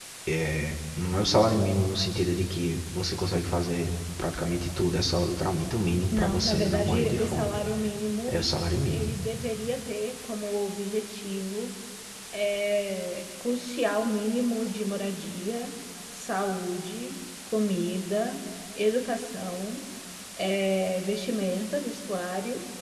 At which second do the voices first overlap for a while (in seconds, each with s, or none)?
6.1 s